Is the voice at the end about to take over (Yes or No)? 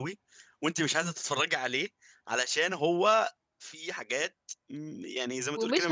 Yes